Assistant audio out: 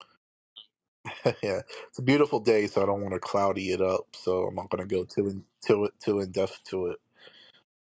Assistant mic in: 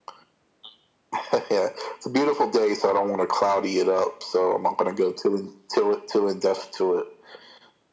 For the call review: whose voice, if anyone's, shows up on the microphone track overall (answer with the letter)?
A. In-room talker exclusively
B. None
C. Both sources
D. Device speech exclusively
D